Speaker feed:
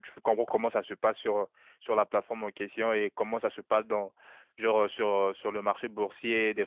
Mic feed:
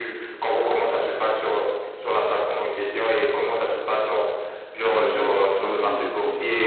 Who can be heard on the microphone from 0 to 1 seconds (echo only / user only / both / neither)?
echo only